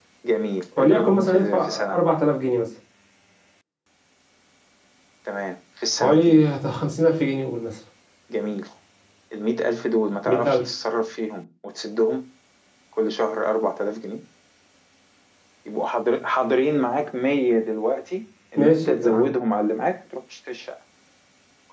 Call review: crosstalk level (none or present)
present